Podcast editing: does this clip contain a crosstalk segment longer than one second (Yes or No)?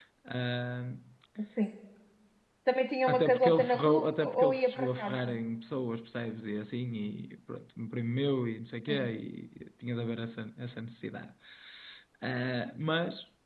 Yes